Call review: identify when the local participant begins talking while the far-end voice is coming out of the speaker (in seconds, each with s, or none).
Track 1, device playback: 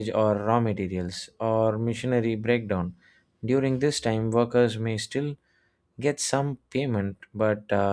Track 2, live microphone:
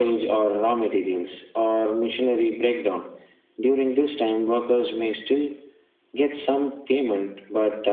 none